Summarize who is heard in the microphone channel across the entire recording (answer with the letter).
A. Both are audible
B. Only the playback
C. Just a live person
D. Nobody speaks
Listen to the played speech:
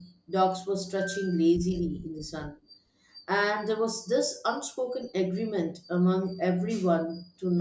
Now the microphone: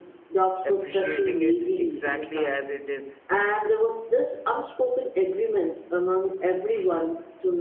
A